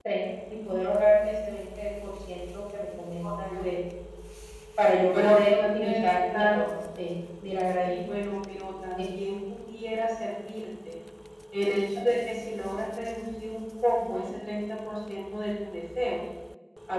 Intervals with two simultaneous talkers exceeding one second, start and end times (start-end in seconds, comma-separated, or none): 5.1-6.6